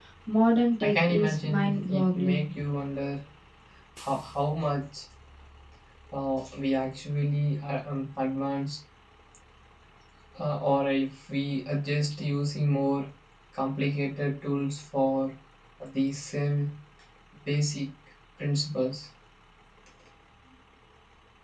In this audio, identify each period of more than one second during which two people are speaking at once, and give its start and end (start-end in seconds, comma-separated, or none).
0.8-2.5